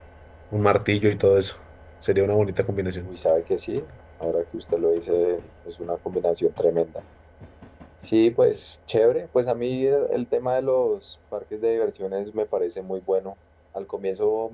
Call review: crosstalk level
none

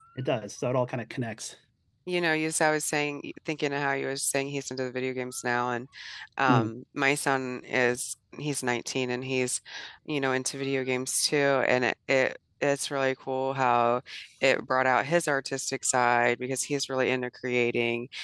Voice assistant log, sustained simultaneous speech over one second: none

